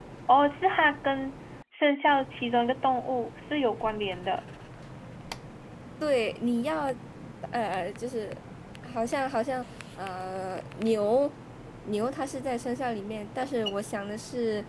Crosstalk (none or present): none